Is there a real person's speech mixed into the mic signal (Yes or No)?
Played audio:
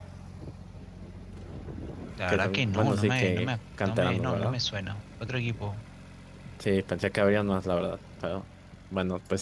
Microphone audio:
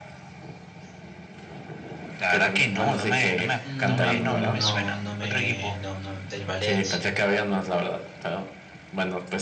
Yes